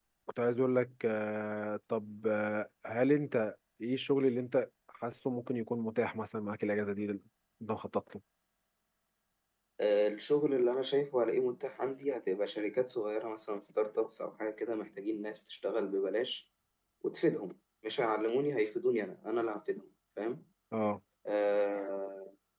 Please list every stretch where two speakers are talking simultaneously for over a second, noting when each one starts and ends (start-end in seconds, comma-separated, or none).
none